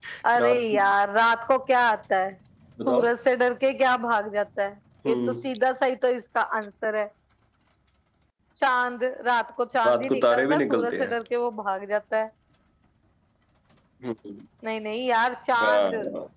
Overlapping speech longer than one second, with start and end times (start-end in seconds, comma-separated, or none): 9.8-11.2